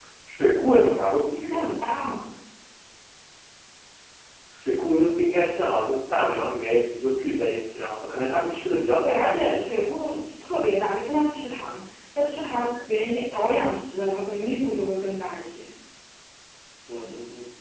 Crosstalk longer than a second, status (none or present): none